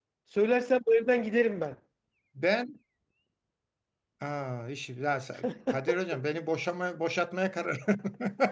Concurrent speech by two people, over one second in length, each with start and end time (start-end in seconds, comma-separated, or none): none